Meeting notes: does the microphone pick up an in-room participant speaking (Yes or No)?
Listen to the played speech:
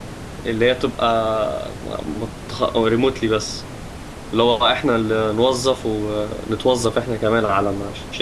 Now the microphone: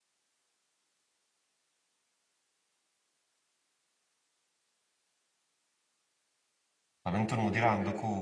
Yes